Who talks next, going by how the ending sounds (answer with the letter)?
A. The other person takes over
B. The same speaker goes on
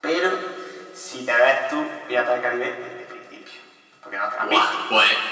A